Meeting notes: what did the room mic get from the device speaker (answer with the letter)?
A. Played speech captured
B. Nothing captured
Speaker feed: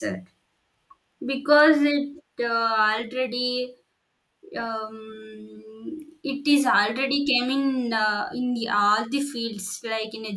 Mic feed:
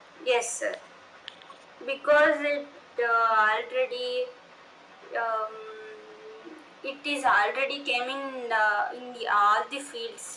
A